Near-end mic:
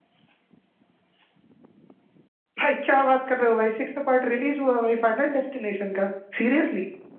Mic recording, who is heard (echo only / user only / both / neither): user only